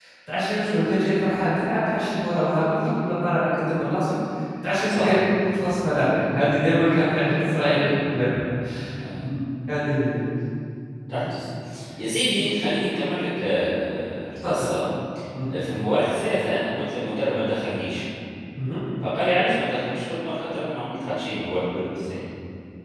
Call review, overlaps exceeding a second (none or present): none